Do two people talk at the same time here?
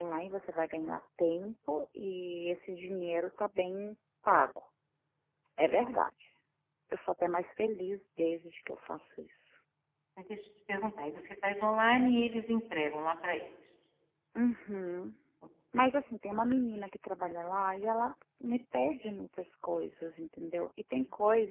No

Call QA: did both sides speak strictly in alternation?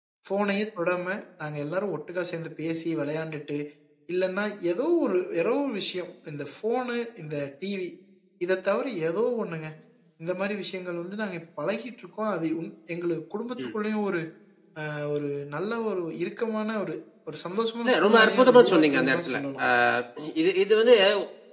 No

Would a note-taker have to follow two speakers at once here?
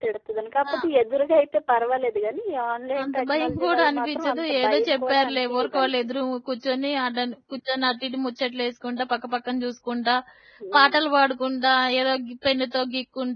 Yes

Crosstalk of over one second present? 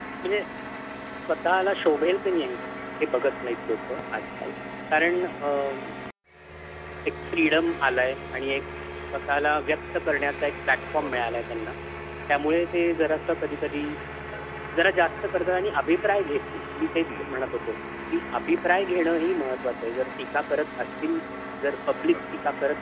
No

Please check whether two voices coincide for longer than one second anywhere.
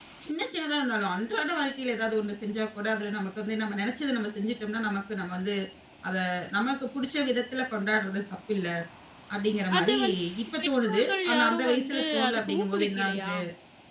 Yes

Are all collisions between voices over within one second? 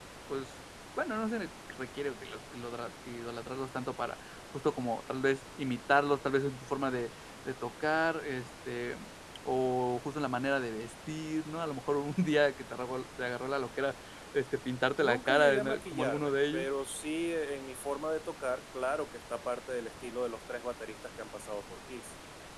No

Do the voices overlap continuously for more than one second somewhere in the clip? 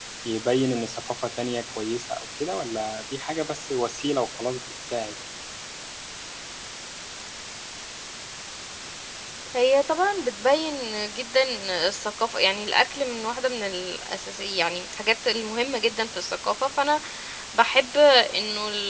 No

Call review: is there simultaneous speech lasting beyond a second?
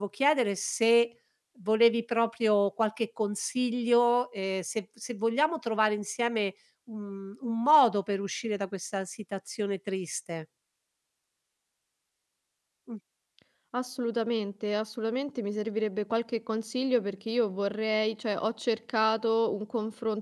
No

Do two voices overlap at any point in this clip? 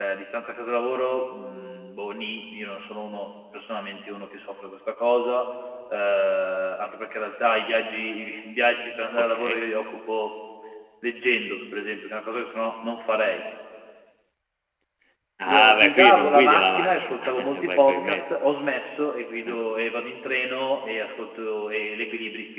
Yes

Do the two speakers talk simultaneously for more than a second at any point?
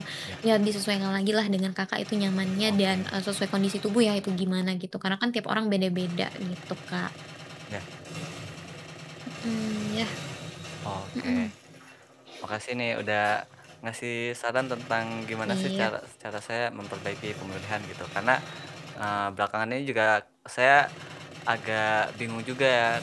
No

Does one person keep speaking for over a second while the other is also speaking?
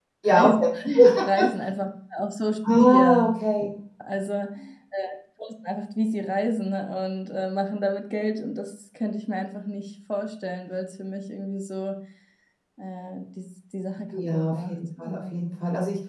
Yes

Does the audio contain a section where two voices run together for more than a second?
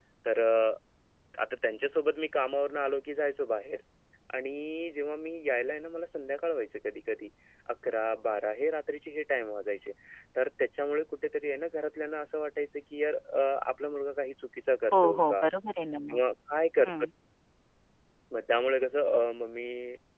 No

